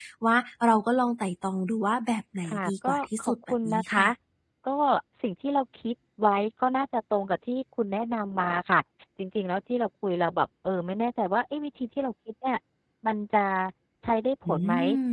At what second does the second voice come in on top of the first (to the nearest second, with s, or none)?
2 s